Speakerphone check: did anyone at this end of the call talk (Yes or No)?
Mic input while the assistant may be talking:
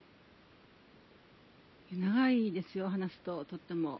Yes